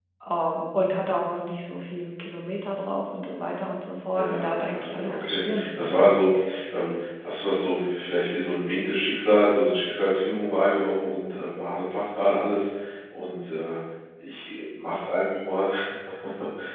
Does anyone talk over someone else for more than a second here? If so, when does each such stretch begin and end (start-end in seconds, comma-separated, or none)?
4.1-6.1